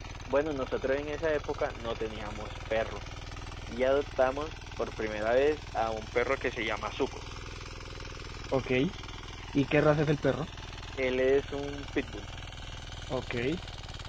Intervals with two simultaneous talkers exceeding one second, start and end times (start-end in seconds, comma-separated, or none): none